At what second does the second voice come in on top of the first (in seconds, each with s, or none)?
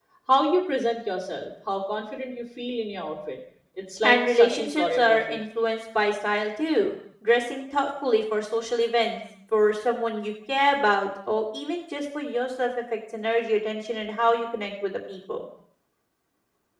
4.0 s